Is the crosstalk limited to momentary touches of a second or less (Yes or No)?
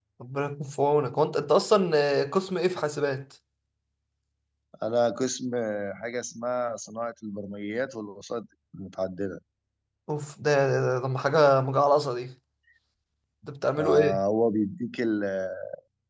Yes